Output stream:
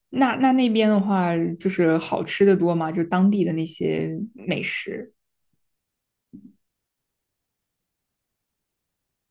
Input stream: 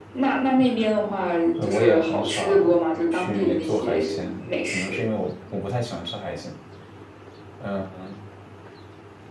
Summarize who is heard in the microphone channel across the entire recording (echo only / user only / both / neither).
both